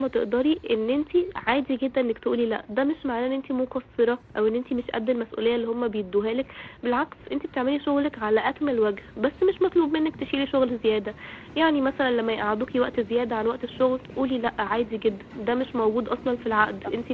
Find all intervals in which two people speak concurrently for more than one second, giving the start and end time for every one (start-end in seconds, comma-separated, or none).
none